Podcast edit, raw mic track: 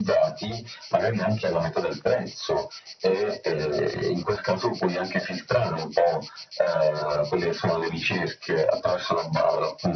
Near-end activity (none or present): none